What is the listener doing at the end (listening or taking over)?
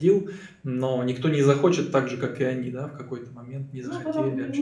taking over